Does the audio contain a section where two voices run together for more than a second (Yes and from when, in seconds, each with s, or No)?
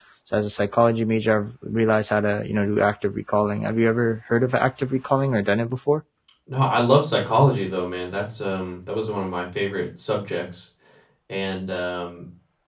No